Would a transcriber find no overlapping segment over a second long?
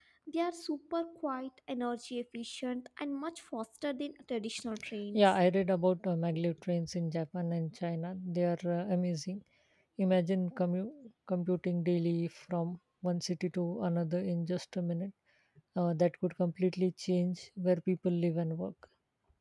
Yes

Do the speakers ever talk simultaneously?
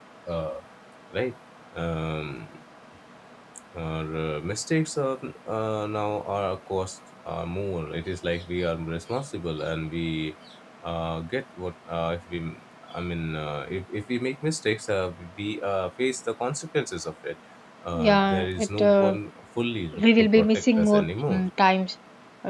Yes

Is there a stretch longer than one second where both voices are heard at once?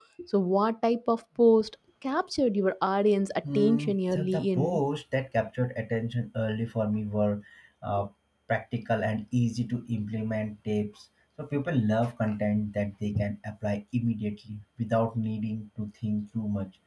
Yes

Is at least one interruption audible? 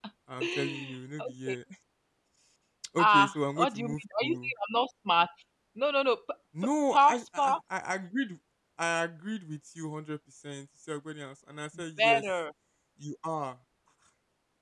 Yes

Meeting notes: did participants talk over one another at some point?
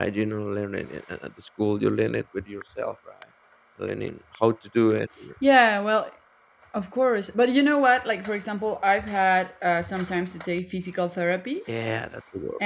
No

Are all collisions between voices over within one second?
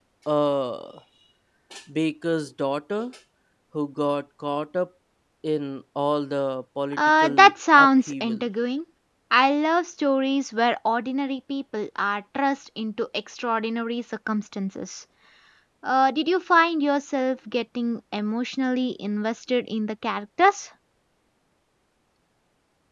No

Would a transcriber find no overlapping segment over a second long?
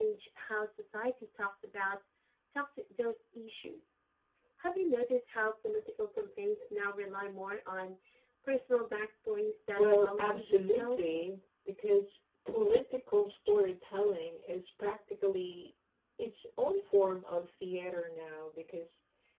No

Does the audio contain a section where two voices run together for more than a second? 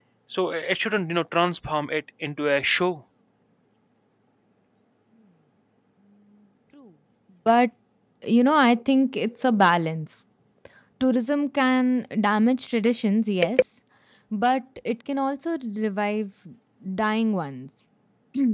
No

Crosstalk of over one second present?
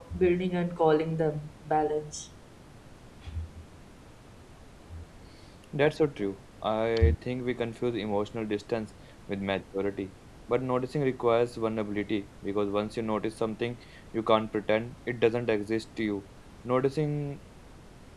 No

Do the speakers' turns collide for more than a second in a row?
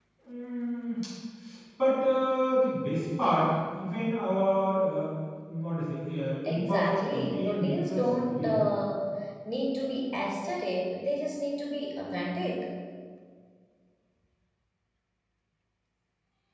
Yes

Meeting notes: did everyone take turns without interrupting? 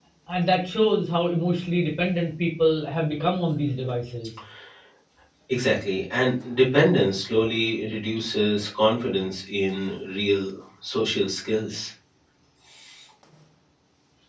Yes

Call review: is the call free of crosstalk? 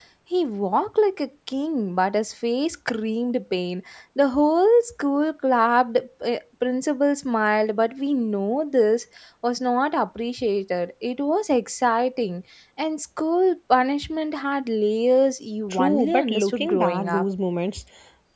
No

